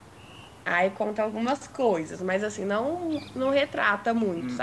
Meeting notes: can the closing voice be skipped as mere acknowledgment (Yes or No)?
No